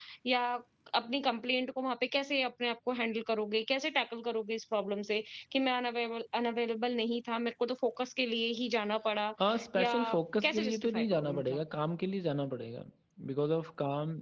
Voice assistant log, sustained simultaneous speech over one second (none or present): present